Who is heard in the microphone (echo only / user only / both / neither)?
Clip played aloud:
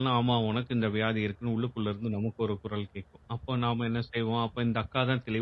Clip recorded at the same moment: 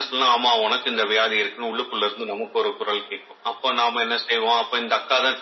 echo only